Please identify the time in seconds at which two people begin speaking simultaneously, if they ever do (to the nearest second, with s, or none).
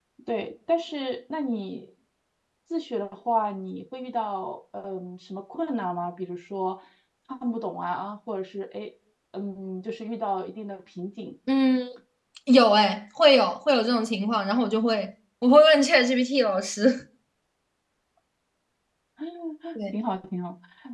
none